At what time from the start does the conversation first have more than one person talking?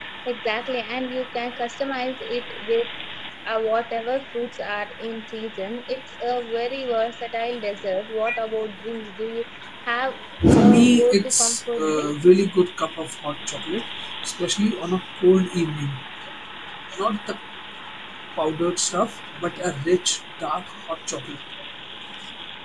10.6 s

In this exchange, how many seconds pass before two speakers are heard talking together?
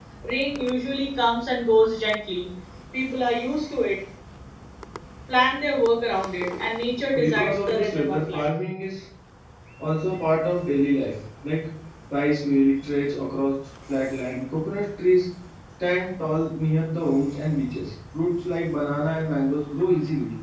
7.1 s

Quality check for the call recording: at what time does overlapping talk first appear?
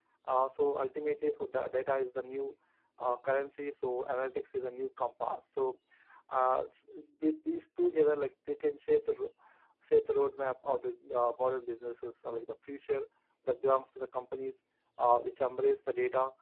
none

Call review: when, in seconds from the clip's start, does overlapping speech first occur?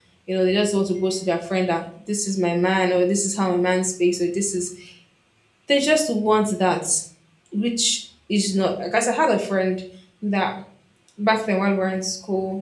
none

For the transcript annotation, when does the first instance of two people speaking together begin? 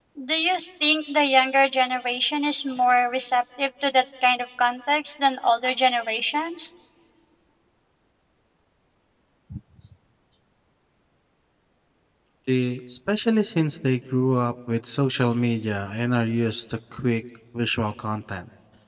none

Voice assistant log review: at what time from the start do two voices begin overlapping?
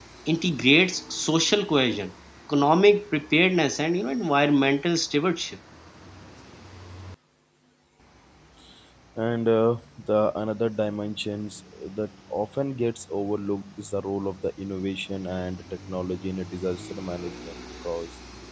none

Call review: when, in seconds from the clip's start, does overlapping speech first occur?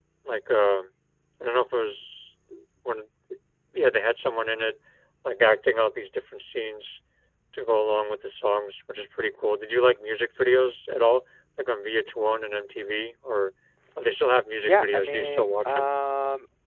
14.6 s

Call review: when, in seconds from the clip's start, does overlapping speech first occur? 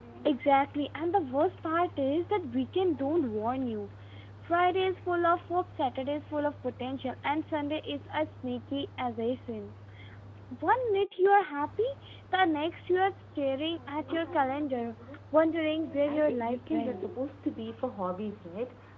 15.8 s

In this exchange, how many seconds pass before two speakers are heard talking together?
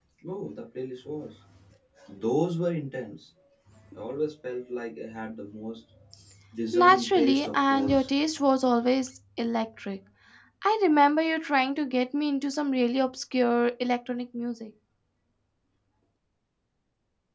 6.7 s

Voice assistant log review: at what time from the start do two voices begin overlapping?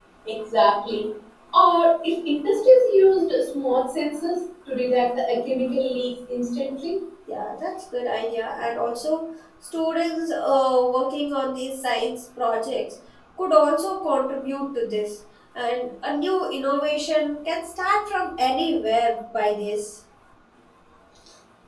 none

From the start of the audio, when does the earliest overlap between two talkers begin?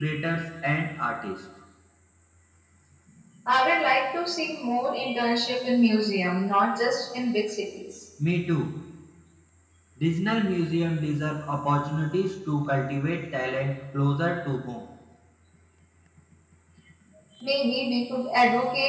none

